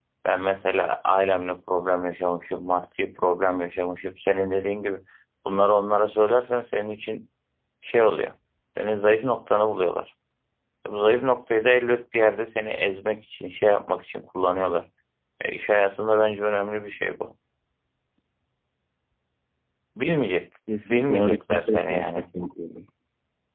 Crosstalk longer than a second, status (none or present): present